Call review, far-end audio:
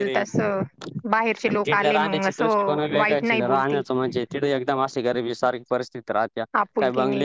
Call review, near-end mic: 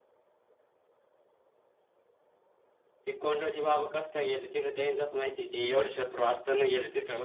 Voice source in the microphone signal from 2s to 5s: user only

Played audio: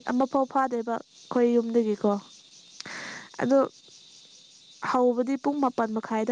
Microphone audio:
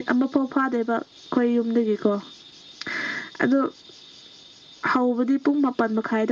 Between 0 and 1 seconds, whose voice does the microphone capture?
echo only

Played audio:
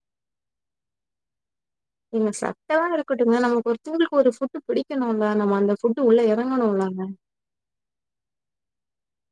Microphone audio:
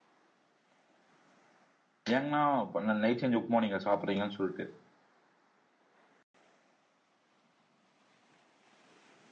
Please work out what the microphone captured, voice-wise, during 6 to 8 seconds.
neither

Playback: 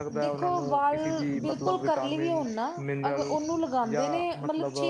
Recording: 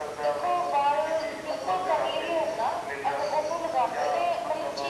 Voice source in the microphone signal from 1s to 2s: echo only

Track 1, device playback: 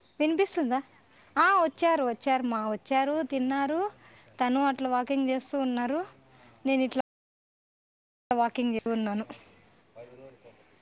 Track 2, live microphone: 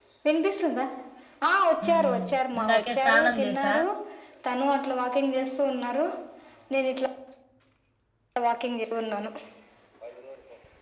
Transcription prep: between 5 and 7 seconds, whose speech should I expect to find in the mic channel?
echo only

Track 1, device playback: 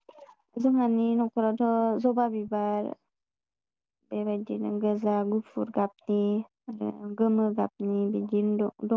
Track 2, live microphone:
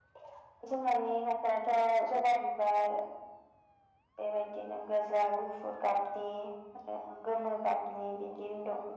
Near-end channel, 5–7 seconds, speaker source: echo only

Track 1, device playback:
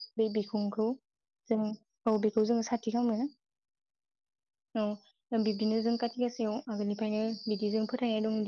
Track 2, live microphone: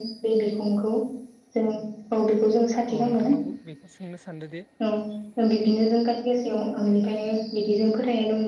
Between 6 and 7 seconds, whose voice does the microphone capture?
echo only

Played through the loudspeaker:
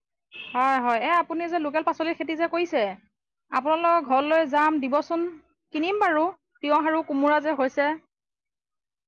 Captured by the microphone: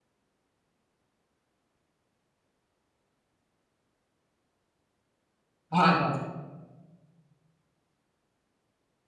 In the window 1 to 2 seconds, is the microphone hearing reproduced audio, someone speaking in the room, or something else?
neither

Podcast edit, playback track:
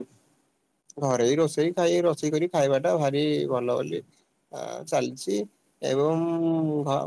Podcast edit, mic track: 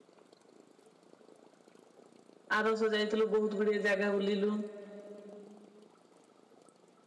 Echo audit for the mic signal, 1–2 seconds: neither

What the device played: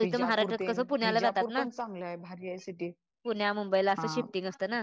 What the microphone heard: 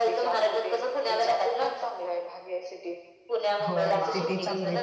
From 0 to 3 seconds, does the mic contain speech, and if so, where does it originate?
echo only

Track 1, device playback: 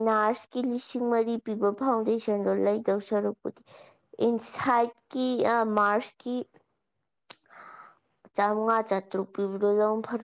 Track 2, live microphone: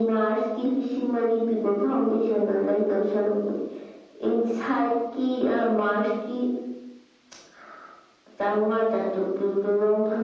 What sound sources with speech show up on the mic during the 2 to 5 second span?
echo only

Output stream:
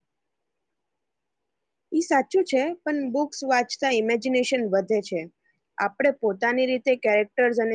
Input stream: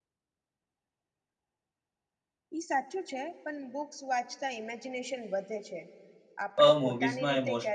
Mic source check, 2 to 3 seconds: echo only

